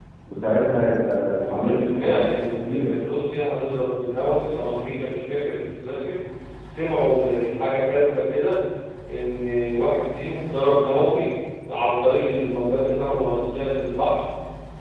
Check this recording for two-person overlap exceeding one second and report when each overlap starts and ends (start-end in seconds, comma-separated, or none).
1.4-3.0